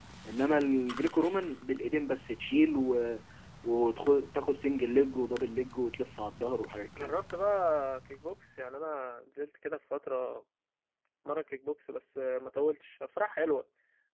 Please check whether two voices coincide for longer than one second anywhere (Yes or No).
No